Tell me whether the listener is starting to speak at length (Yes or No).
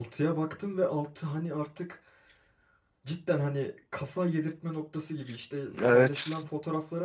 No